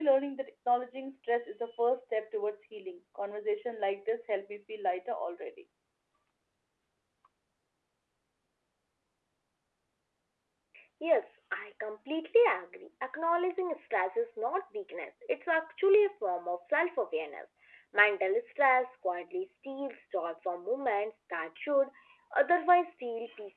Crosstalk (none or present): none